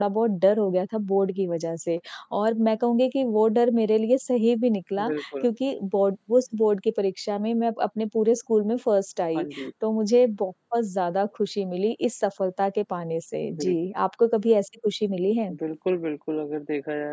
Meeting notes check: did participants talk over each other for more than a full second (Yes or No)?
No